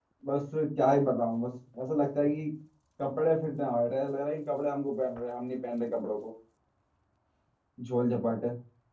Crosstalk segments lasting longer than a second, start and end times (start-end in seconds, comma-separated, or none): none